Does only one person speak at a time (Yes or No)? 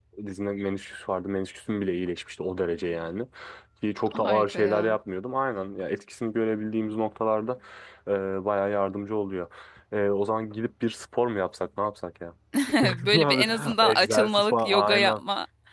No